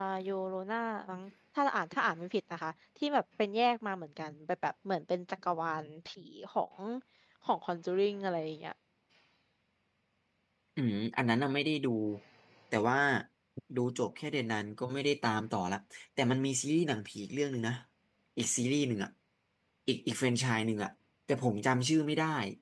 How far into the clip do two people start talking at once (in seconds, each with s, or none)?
none